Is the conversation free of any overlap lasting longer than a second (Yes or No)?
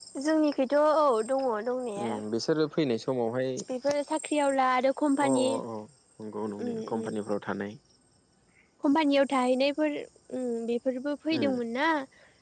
Yes